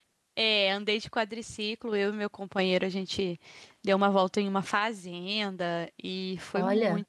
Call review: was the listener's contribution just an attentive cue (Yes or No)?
Yes